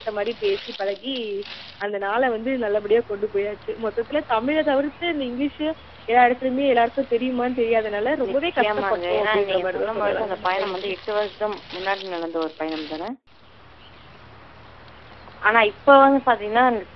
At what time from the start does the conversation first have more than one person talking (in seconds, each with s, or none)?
8.2 s